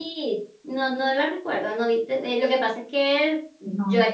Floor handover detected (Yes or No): No